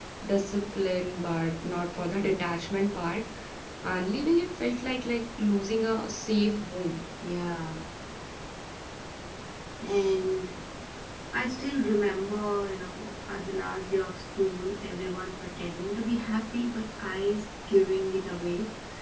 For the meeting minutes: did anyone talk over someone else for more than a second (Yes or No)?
No